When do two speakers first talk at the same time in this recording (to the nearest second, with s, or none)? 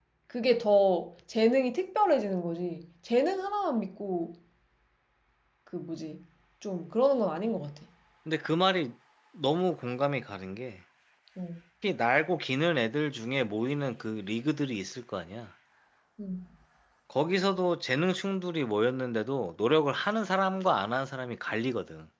none